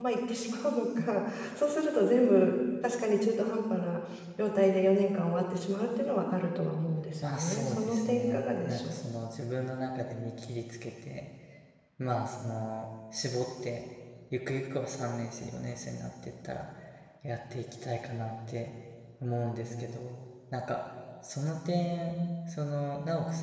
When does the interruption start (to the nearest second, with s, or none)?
7 s